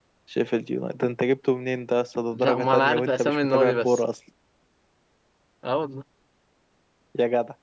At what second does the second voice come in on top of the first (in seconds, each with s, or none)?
2.3 s